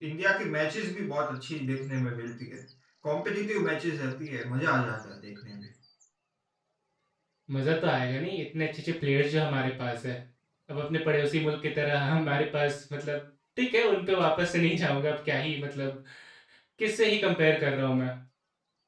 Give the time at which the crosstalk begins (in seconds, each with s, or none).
none